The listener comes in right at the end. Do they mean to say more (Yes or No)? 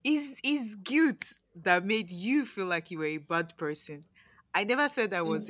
No